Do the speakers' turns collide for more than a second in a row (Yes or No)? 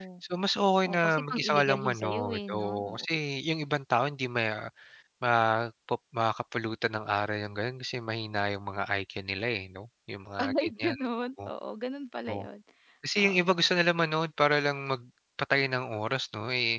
Yes